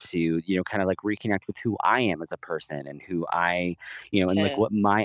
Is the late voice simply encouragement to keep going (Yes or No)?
Yes